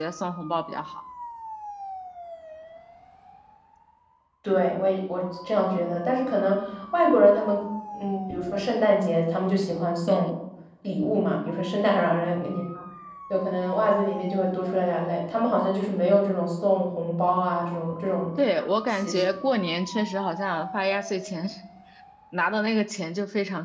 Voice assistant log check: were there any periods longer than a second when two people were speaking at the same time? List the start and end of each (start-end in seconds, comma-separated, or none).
none